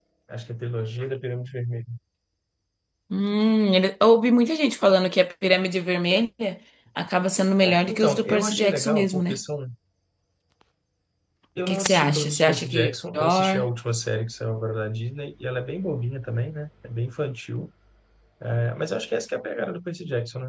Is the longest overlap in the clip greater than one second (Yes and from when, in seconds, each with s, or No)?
Yes, from 7.6 s